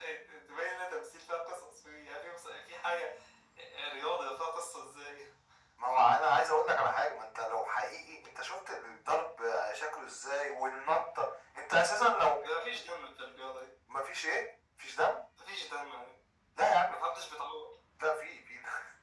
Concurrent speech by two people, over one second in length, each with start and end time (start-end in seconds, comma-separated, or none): none